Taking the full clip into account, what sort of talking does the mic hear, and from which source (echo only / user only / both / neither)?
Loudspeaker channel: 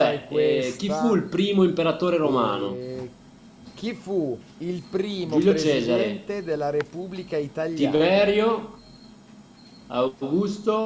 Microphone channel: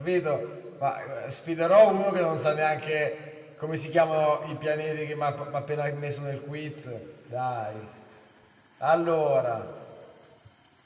user only